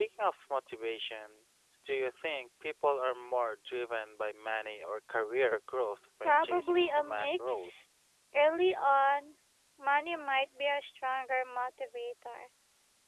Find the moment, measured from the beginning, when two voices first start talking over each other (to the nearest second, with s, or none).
6 s